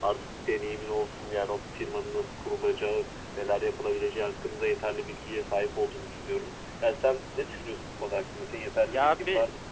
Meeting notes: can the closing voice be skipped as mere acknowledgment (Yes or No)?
No